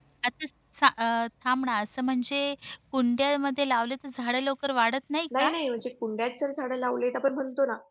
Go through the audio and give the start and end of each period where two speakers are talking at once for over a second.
none

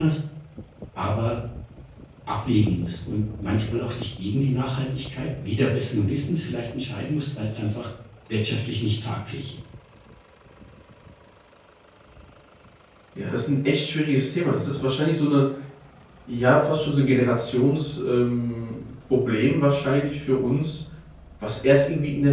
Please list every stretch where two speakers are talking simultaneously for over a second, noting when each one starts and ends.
none

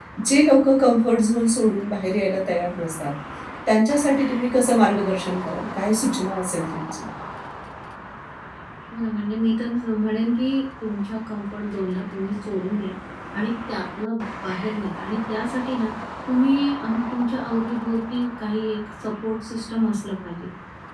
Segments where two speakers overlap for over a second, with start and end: none

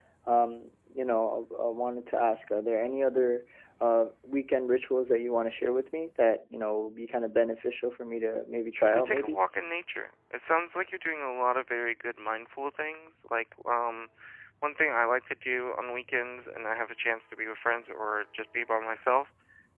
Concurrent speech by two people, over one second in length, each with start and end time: none

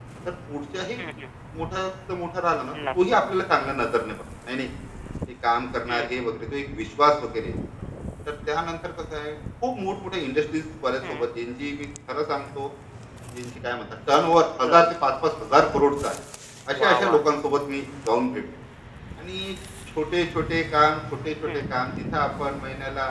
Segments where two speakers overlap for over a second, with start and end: none

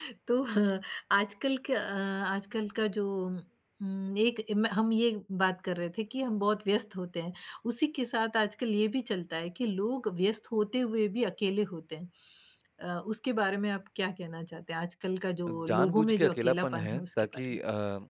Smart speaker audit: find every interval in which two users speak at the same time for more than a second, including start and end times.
15.7-17.6

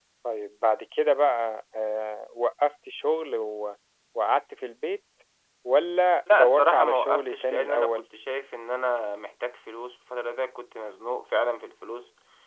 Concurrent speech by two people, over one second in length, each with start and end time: 6.3-8.0

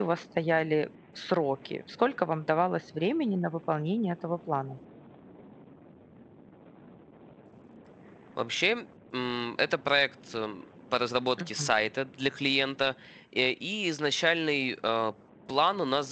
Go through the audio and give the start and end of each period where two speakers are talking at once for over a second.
none

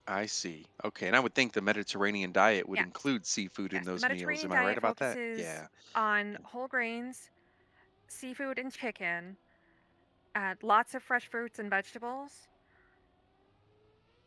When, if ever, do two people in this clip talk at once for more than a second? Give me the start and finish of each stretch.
3.7-5.6

